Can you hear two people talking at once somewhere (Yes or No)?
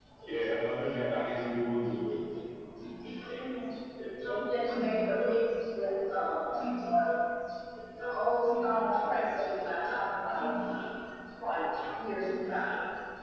No